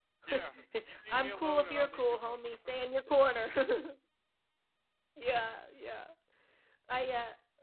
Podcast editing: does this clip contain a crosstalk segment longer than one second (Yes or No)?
Yes